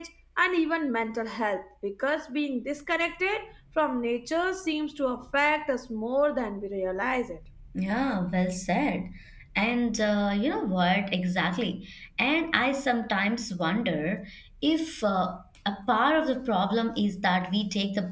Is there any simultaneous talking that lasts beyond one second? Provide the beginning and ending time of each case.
none

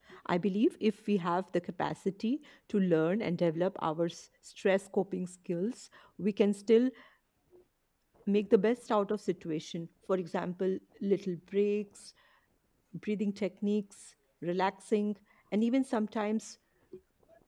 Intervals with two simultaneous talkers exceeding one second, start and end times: none

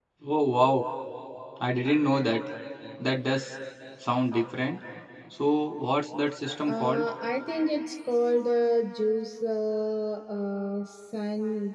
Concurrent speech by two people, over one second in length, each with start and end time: none

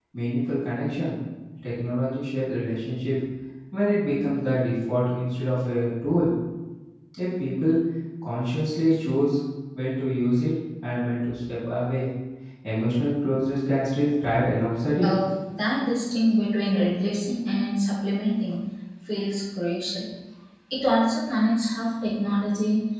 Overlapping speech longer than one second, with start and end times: none

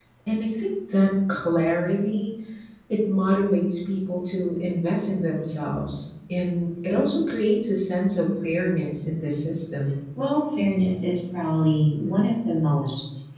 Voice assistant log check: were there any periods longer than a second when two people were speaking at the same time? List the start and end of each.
none

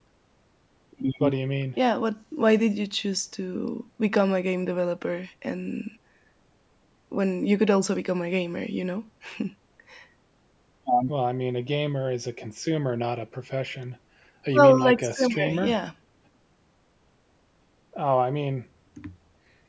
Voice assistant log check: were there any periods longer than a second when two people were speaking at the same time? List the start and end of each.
14.5-15.8

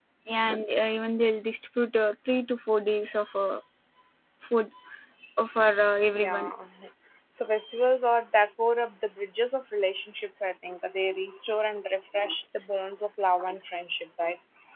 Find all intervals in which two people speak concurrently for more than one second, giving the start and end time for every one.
none

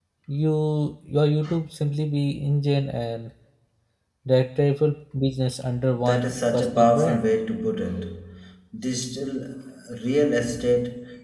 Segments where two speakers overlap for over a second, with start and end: 6.0-7.3

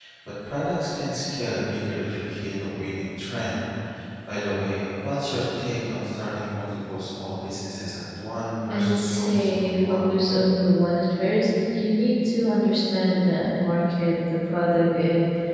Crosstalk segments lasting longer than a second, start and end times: 8.7-10.2

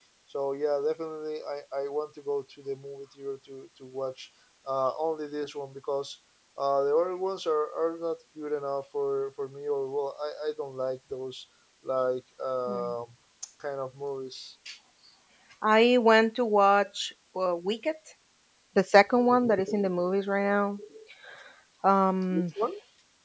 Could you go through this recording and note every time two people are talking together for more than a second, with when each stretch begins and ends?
none

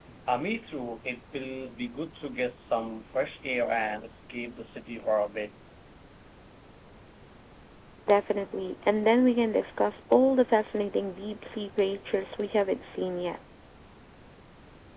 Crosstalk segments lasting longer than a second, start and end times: none

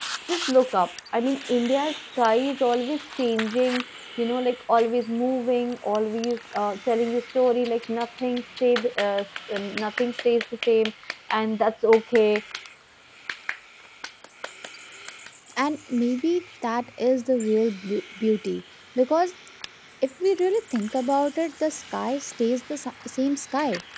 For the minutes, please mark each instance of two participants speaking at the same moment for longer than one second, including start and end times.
none

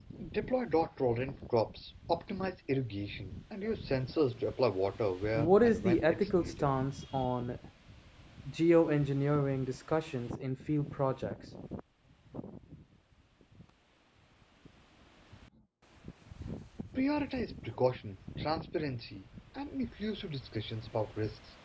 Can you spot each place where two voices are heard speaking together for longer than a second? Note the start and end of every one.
5.3-6.7

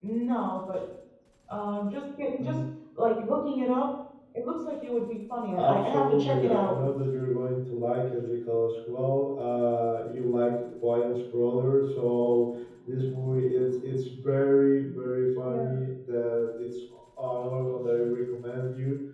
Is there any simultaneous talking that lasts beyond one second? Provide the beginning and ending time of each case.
5.6-6.8

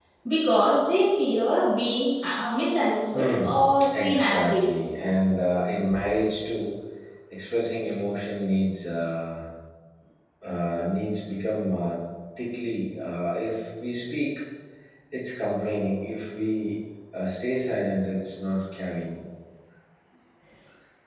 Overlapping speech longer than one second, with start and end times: 3.1-4.7

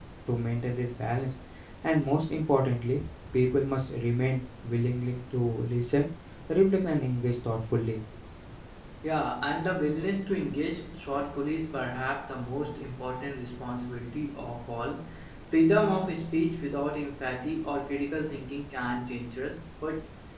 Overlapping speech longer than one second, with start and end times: none

